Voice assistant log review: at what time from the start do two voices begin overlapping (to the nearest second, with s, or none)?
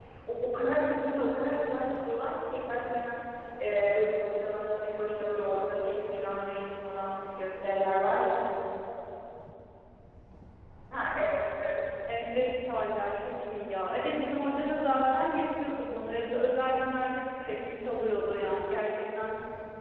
none